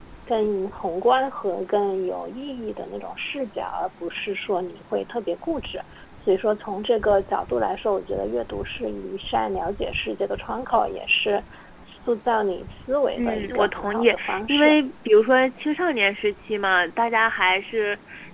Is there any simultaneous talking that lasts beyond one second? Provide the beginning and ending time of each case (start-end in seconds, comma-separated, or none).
13.2-14.8